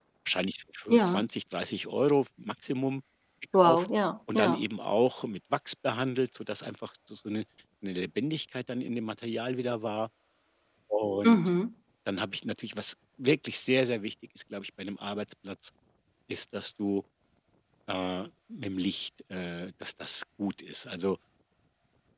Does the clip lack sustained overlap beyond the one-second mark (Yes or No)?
Yes